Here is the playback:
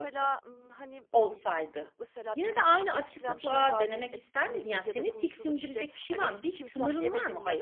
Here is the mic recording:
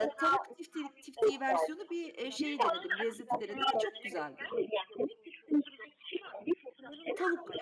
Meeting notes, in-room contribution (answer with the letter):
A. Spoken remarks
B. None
A